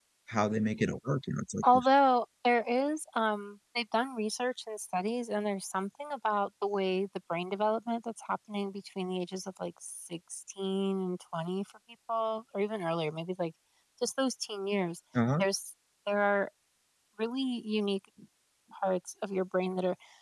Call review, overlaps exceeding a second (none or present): none